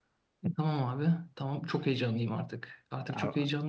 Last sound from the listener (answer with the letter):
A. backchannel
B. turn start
A